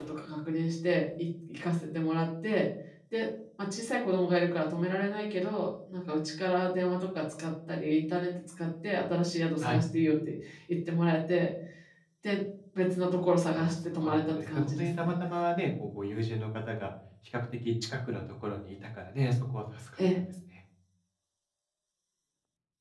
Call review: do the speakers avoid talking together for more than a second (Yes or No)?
No